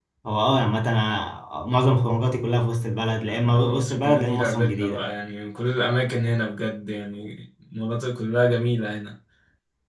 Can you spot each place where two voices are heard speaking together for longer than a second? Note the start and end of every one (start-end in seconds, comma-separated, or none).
3.3-5.1